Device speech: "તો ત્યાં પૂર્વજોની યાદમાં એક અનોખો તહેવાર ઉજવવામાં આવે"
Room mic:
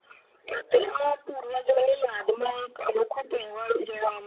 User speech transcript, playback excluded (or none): none